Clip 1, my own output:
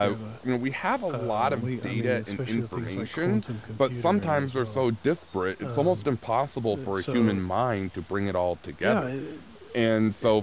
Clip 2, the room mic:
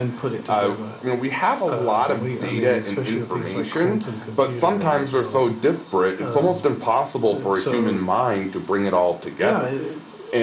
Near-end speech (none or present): none